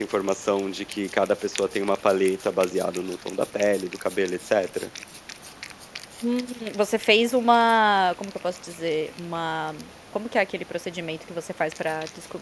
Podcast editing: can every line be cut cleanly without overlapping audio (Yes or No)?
Yes